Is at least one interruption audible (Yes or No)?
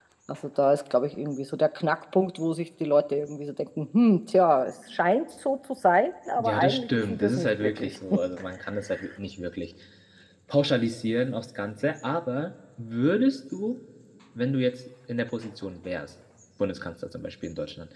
Yes